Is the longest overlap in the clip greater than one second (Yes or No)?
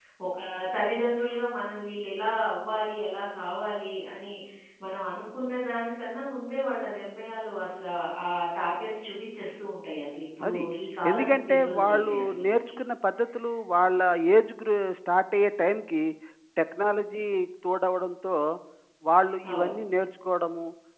Yes